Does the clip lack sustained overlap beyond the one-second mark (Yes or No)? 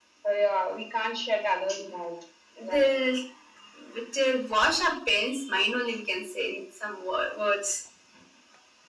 Yes